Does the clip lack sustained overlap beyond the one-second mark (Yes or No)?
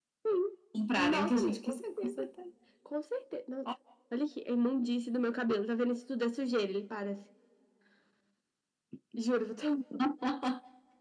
No